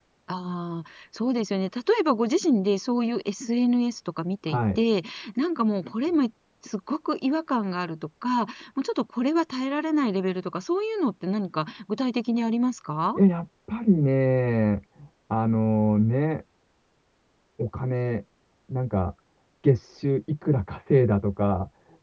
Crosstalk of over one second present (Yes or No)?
No